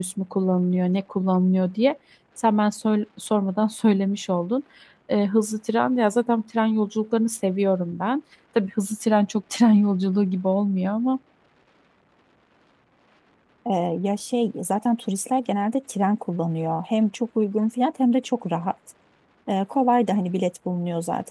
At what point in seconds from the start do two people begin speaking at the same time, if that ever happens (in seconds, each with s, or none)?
none